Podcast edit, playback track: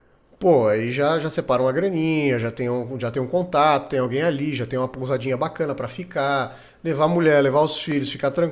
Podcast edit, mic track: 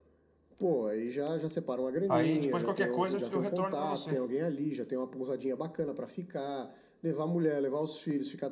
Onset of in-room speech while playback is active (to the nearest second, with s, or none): 2 s